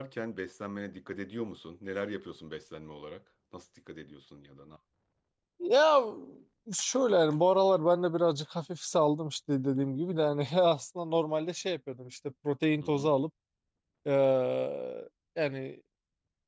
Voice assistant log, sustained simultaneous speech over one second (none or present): none